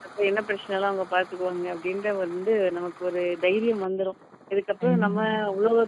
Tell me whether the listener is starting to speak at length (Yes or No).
No